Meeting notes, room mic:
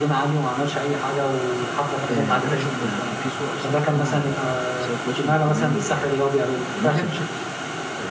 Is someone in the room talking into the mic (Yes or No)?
Yes